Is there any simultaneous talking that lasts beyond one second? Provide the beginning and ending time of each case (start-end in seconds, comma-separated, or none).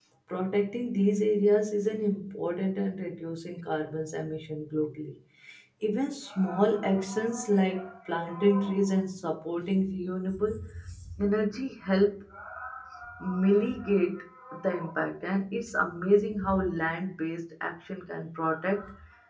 none